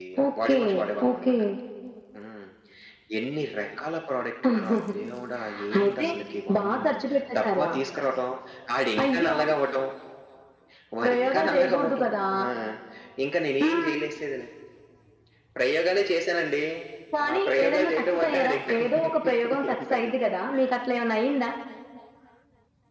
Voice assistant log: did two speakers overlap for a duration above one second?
Yes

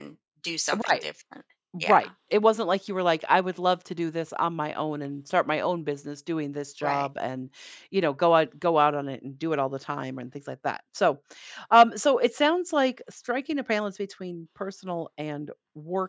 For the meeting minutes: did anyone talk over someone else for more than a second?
No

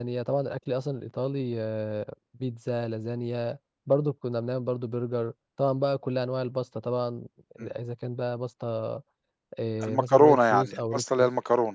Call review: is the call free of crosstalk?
No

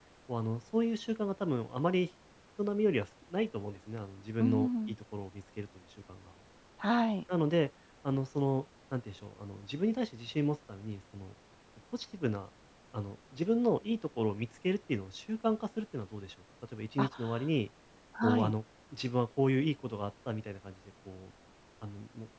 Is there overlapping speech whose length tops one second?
No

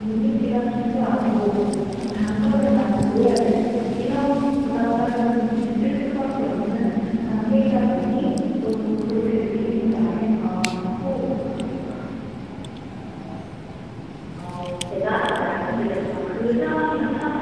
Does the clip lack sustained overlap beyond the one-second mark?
Yes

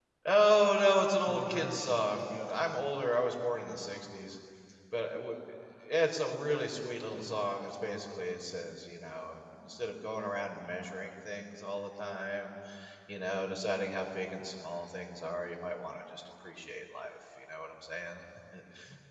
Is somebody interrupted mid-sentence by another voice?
Yes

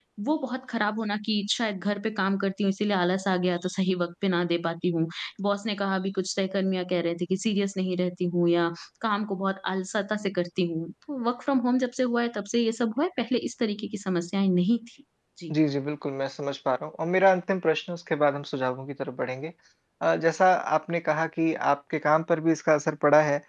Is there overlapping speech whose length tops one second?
No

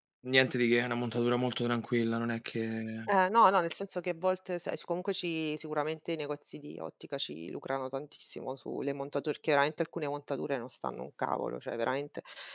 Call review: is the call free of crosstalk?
Yes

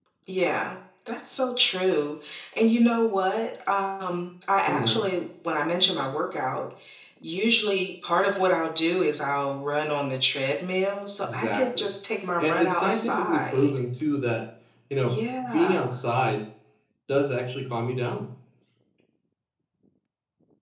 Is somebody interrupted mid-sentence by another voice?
Yes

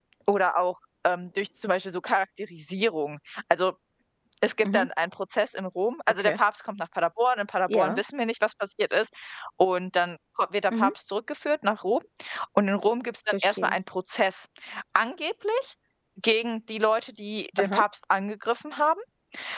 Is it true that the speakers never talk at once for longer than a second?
Yes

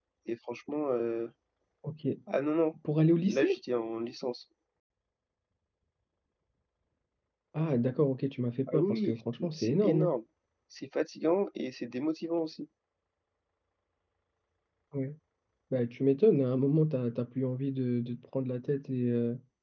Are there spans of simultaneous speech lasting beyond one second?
Yes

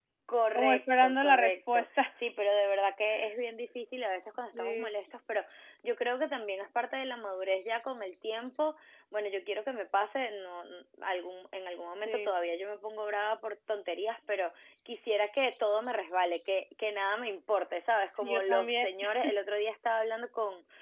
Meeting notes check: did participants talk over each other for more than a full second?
Yes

